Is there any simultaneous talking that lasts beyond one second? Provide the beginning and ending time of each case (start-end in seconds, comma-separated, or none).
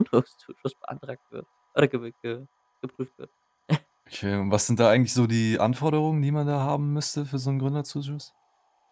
none